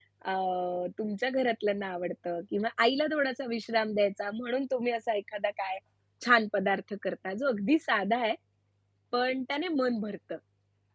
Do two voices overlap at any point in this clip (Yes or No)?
No